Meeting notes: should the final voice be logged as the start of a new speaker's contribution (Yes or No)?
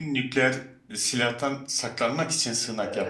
Yes